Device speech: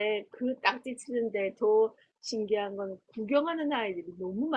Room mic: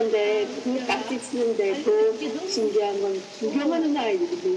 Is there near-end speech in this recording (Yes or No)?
Yes